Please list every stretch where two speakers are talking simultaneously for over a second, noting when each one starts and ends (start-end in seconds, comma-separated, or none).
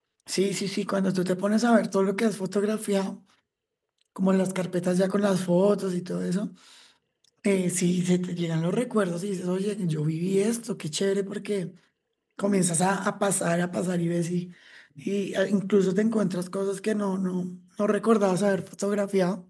none